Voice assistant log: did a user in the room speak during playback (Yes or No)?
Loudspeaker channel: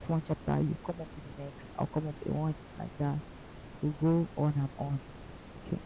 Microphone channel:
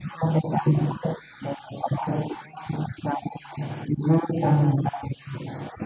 No